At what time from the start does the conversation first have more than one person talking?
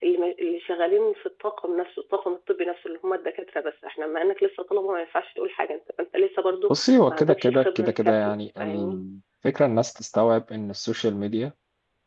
6.7 s

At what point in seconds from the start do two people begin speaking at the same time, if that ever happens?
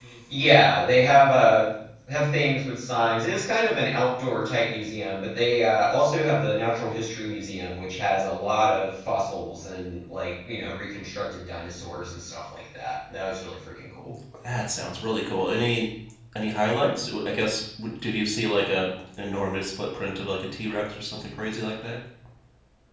none

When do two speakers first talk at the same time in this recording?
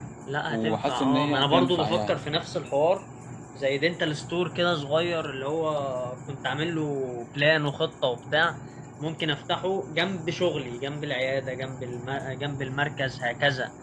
0.5 s

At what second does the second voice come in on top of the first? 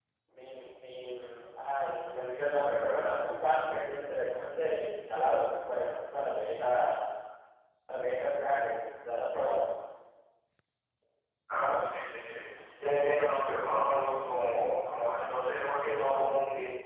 none

